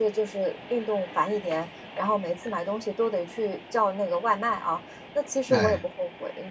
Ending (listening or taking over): listening